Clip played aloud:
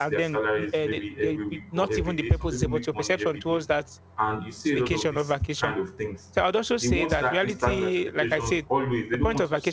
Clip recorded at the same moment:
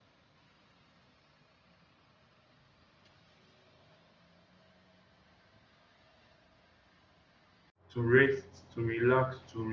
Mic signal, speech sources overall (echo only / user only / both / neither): user only